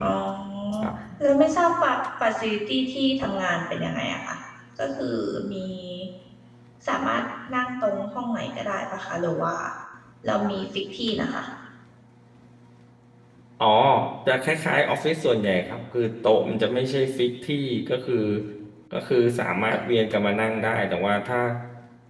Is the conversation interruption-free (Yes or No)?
Yes